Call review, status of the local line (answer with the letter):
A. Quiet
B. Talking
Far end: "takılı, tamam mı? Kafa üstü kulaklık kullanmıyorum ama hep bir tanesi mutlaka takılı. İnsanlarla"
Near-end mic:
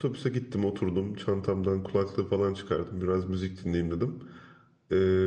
B